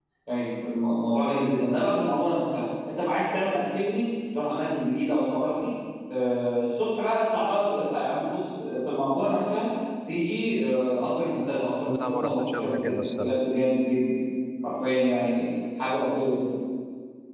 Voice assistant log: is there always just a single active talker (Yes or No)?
No